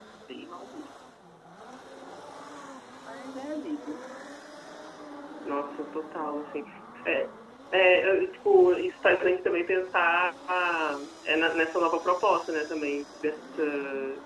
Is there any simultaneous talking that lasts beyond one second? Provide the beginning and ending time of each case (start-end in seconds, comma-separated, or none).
none